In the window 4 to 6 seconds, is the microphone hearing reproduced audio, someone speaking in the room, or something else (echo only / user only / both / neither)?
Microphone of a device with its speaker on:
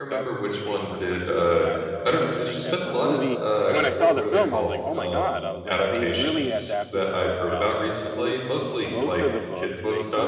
both